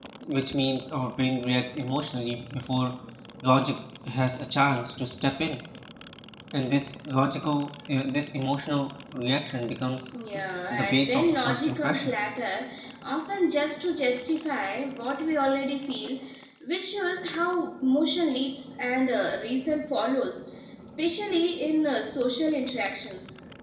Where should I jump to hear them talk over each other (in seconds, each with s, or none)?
10.7 s